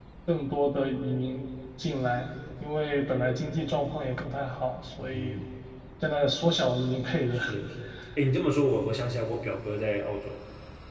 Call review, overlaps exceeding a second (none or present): none